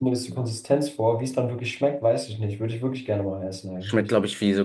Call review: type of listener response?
taking over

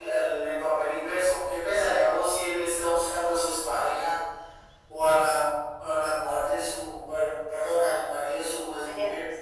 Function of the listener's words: listening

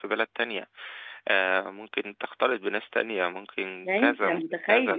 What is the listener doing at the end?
taking over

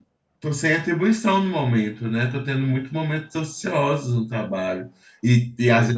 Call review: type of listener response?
listening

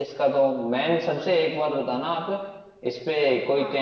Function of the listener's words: listening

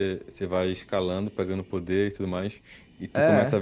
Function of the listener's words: listening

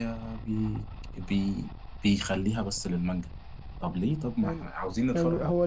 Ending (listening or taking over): taking over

